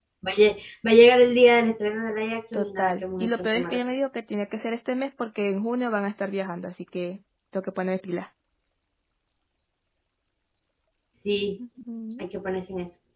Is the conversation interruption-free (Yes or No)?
No